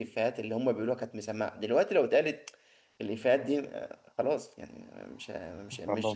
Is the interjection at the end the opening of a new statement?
No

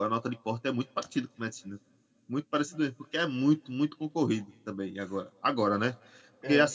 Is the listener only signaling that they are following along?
Yes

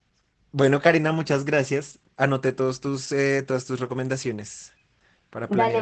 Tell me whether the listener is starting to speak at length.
Yes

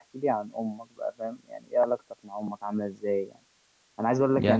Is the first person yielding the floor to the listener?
No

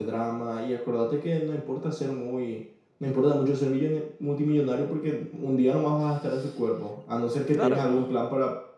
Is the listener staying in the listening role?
Yes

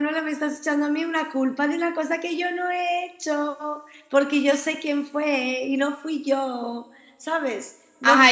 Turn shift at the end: Yes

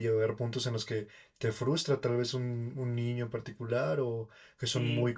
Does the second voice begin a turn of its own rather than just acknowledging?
Yes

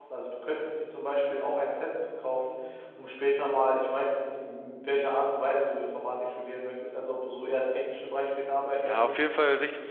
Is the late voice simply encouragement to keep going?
No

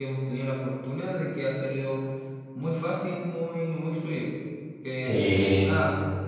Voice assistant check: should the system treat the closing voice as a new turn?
No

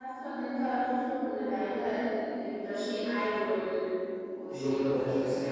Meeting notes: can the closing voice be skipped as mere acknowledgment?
No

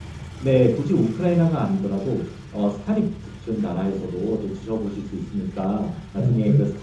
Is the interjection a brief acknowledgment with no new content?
Yes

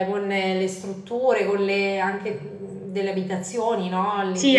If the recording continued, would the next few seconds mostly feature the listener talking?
Yes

